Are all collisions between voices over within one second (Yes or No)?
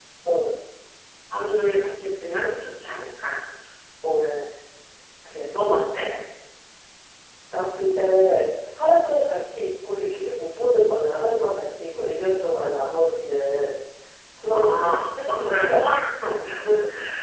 No